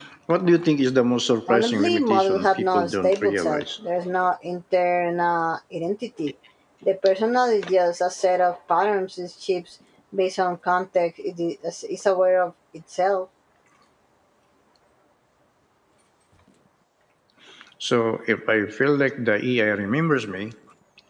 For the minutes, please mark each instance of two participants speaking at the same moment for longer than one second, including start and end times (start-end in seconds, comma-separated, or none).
1.5-3.6